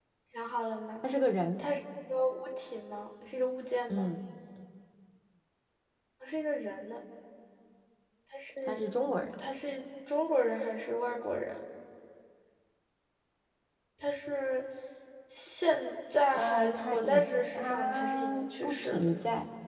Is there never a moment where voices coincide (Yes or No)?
No